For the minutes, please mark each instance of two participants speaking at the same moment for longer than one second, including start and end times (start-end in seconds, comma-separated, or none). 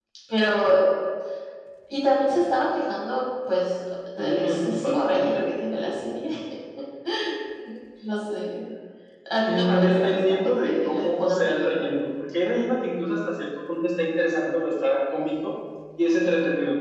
4.2-5.5, 9.5-11.9